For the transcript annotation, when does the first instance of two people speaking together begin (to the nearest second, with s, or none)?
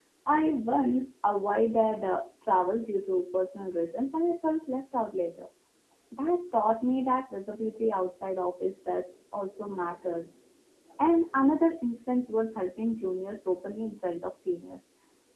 none